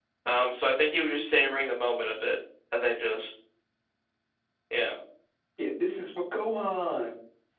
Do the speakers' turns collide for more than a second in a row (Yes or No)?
No